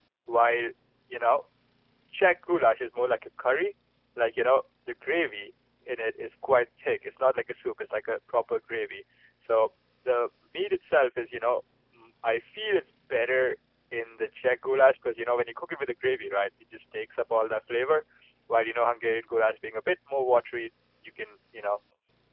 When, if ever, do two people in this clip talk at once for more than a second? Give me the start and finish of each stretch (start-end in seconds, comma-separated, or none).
none